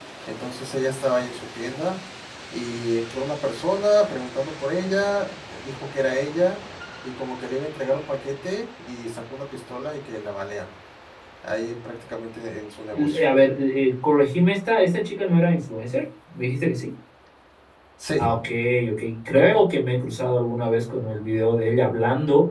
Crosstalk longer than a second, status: none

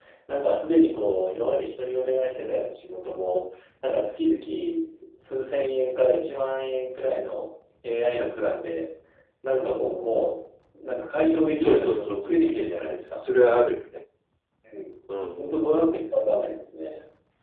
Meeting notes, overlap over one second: present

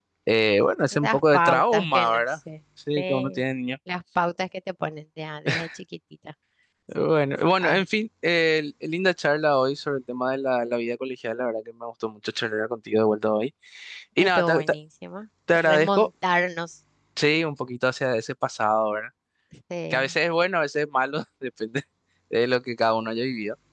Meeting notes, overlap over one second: present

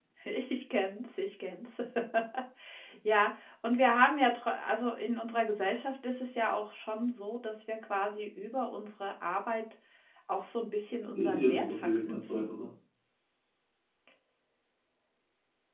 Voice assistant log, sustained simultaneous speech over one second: present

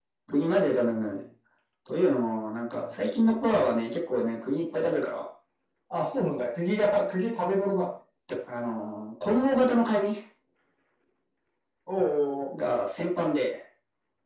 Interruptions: none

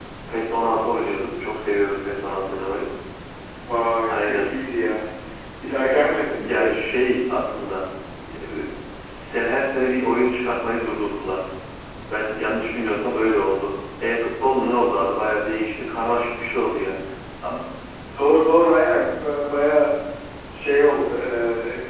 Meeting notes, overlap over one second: none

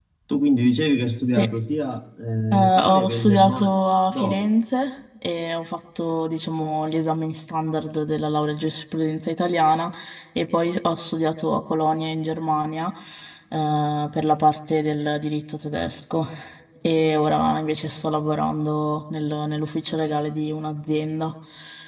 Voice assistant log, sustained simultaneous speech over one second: present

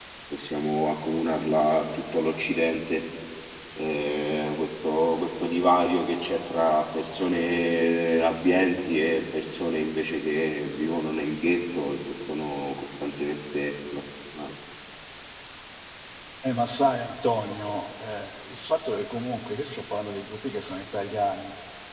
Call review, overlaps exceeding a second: none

